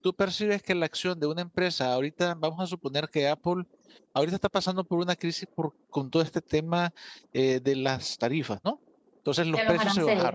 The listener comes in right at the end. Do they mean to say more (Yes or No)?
No